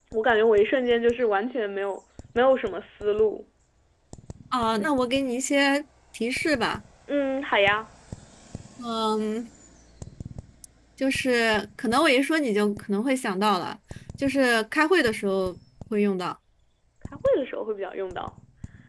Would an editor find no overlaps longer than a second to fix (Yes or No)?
Yes